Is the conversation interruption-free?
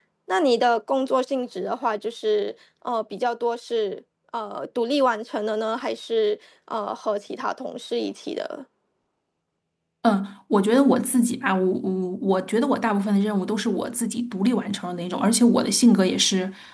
Yes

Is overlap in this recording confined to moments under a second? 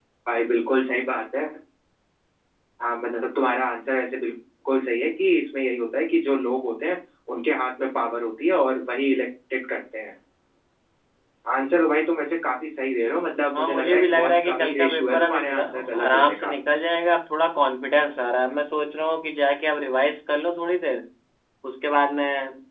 No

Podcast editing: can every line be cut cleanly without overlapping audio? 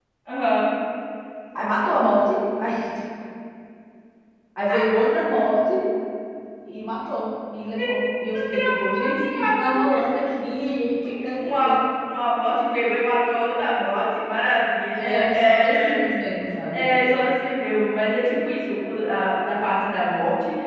No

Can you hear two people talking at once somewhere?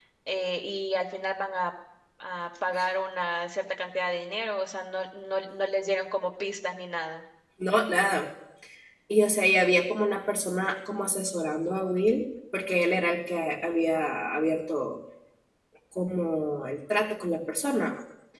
No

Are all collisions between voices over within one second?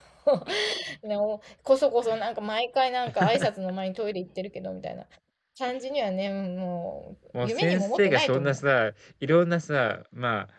No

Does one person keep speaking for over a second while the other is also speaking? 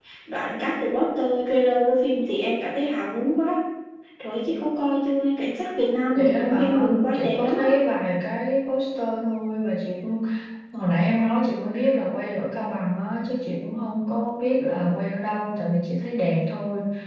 Yes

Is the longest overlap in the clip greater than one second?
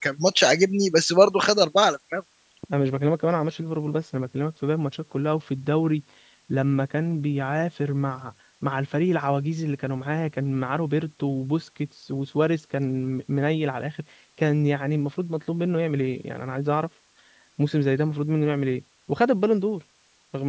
No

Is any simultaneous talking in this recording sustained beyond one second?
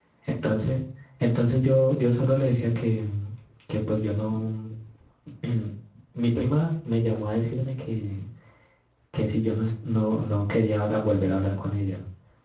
No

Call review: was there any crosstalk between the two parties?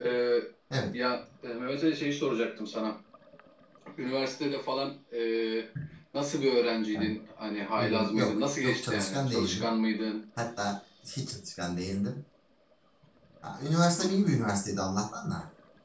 Yes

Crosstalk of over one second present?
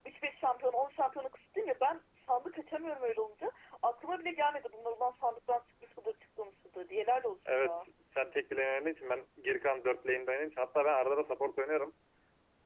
No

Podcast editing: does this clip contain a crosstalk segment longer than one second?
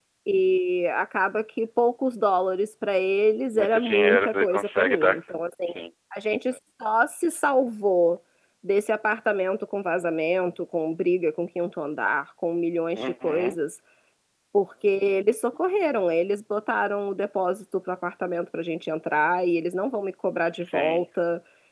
Yes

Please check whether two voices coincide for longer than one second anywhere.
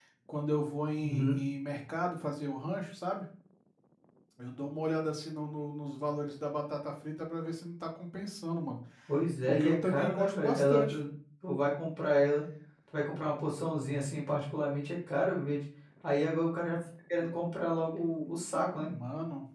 Yes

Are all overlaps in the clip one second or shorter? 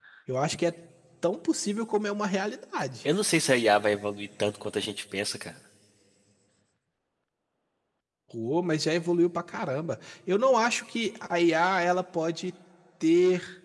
Yes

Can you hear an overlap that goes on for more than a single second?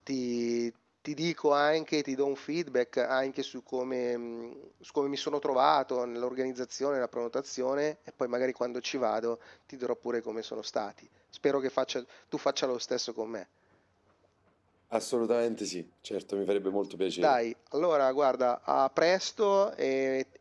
No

